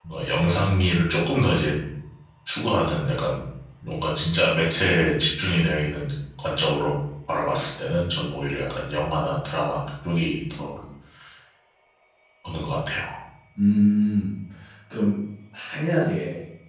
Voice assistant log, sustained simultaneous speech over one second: none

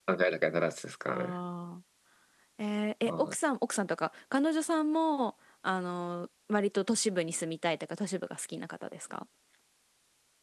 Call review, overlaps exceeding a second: none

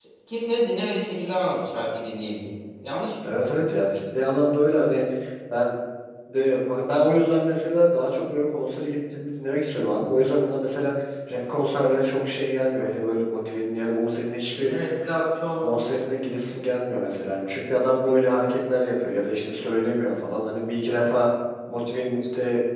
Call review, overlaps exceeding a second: none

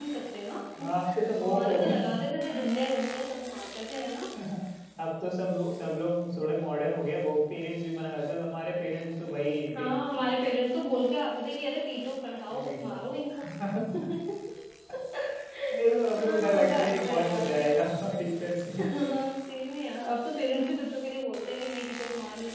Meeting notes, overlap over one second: present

